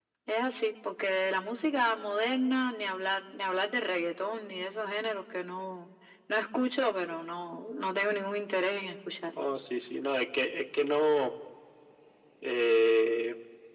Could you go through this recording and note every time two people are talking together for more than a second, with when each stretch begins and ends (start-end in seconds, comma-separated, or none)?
none